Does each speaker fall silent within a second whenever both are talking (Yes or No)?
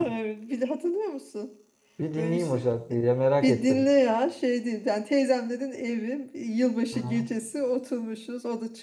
Yes